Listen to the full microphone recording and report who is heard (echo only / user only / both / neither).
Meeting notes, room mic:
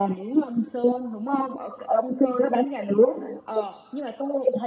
echo only